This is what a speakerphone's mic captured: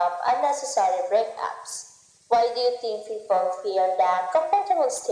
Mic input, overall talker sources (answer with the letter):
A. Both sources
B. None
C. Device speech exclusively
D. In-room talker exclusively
C